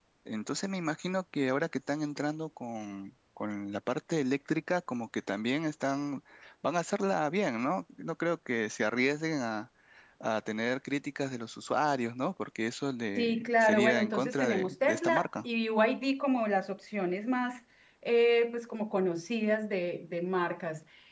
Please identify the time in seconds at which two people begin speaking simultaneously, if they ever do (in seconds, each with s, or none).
13.2 s